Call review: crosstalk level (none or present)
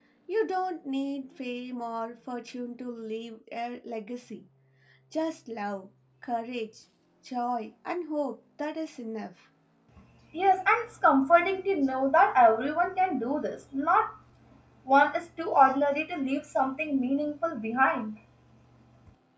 none